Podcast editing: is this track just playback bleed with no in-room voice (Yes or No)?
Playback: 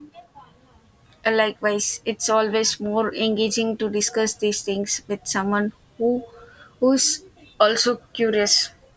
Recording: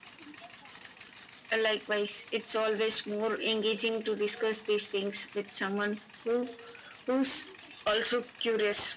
Yes